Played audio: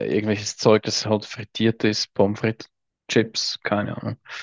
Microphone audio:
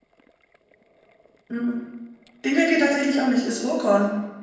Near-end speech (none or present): present